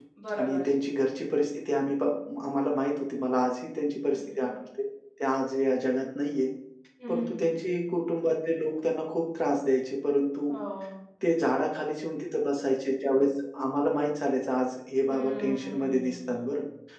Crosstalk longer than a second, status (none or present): present